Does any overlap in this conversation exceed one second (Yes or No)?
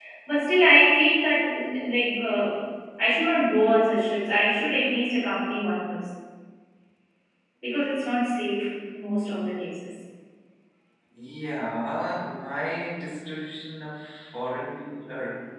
No